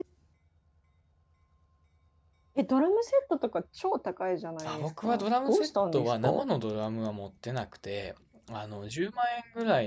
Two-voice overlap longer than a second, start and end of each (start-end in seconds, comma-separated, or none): 4.6-6.5